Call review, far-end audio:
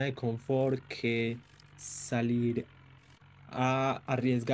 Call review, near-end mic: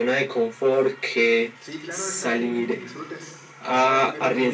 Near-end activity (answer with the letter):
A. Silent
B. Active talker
B